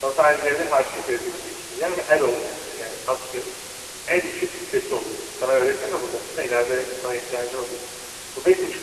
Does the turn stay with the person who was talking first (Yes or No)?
Yes